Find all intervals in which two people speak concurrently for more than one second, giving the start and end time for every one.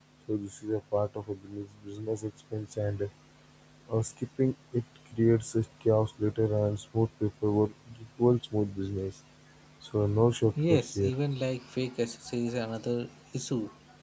none

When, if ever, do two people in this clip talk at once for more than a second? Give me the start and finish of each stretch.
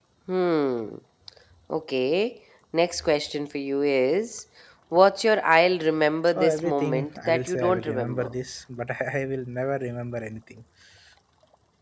6.3-8.3

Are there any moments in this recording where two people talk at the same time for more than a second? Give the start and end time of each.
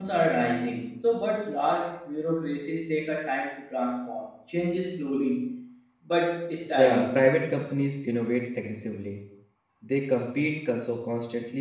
none

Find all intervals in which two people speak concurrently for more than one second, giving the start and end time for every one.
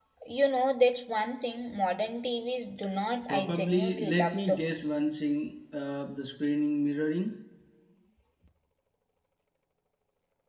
3.3-4.6

